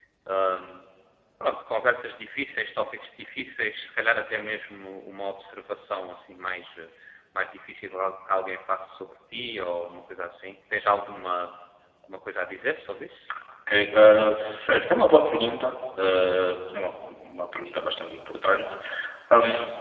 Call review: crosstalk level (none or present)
none